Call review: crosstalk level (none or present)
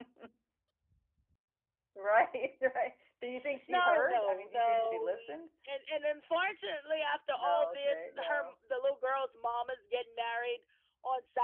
present